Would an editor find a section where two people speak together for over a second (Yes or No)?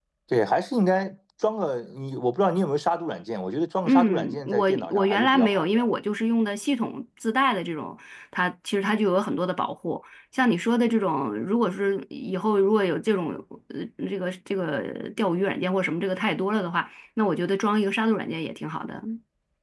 Yes